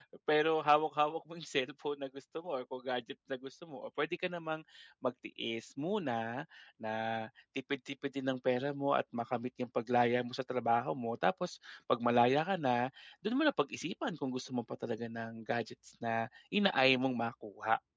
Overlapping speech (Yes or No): No